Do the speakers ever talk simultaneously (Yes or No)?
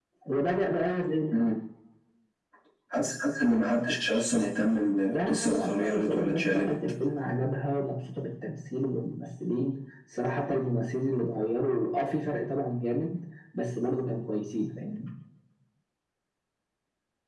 Yes